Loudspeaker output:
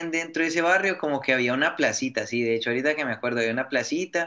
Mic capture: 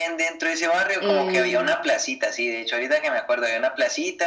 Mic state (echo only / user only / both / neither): both